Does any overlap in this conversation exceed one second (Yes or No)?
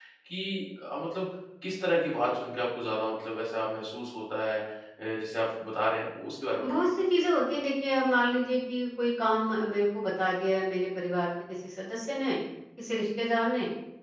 No